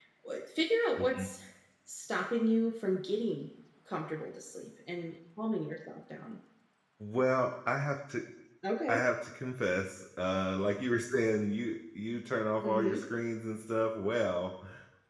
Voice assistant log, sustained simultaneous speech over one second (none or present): none